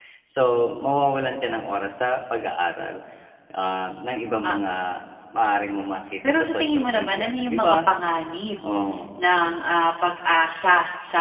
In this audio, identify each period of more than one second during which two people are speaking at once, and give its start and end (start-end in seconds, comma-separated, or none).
6.4-7.8